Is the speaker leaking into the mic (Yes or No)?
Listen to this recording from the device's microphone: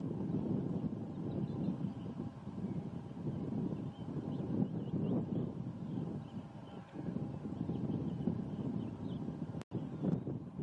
No